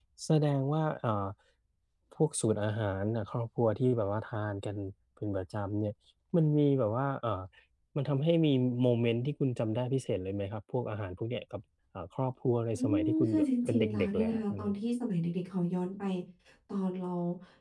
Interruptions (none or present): present